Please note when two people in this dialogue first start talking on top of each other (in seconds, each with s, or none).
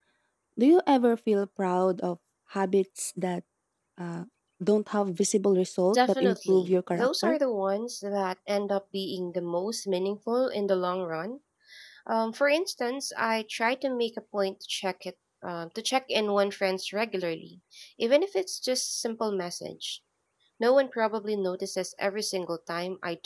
5.9 s